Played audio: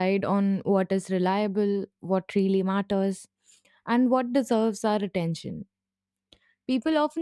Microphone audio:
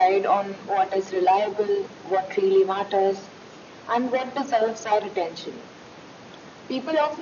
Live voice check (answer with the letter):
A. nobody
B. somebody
A